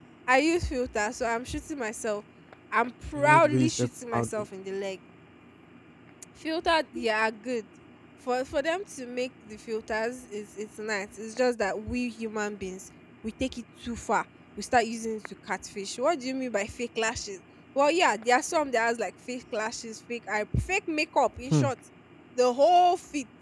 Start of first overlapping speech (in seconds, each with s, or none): 3.1 s